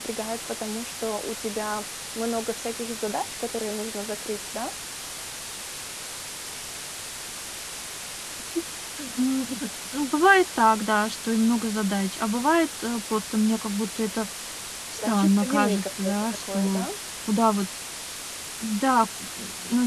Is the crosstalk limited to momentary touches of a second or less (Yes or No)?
No